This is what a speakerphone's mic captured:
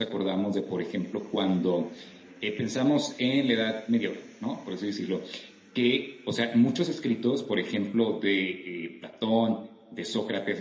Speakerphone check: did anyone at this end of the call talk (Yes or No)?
No